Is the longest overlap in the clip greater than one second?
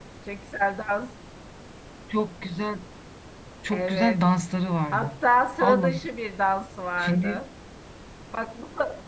No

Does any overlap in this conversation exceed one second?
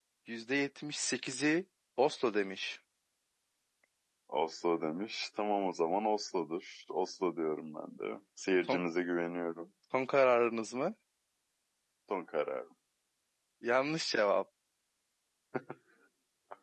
No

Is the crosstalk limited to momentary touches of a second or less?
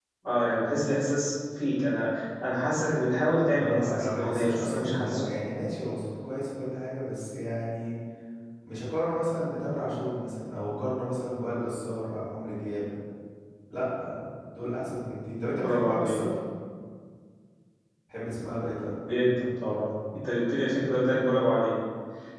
No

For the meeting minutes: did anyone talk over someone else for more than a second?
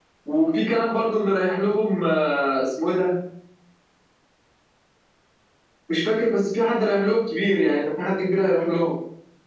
No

